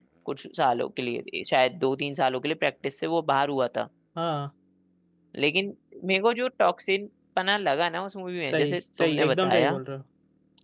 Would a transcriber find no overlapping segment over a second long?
No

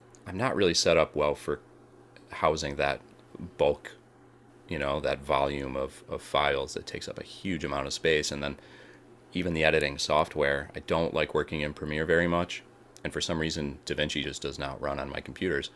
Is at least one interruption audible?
No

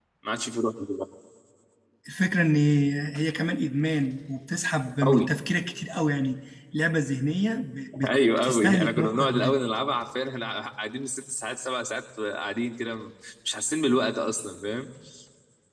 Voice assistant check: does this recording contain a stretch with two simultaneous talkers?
Yes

